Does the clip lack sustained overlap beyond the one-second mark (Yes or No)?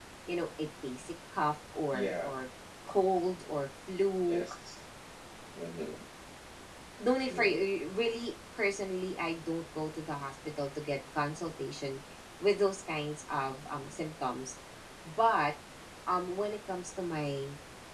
Yes